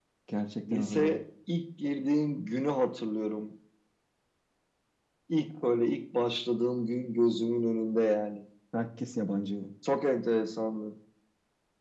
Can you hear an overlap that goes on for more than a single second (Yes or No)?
No